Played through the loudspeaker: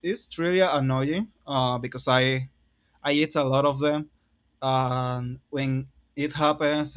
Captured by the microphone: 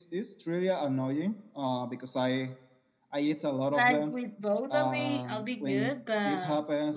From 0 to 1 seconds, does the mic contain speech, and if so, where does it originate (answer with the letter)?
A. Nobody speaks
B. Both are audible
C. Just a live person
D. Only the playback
D